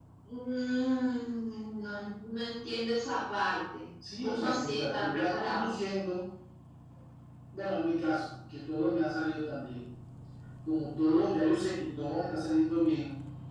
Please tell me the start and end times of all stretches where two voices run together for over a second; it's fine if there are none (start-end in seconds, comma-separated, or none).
4.2-5.8